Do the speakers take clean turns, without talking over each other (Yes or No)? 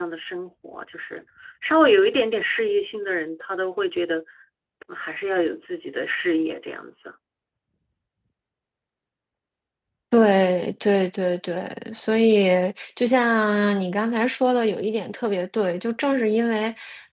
Yes